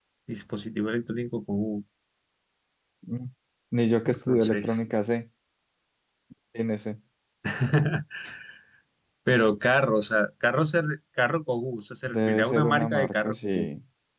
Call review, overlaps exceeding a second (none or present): present